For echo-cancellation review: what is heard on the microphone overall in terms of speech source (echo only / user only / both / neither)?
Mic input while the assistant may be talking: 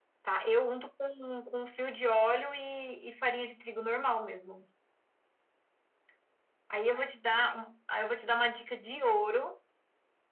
echo only